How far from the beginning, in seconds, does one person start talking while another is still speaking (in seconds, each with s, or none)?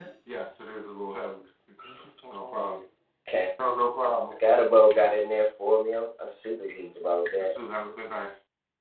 none